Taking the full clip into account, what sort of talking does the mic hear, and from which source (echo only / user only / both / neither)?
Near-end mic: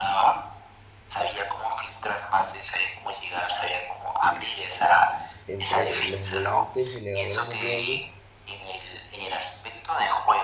both